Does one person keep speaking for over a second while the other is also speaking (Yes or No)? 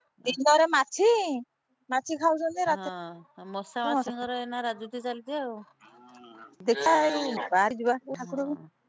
No